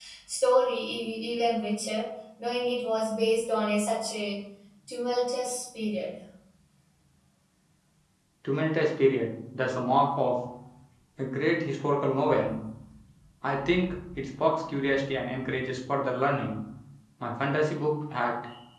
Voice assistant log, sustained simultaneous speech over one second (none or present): none